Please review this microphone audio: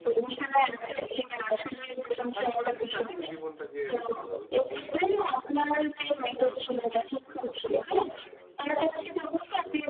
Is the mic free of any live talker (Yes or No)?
No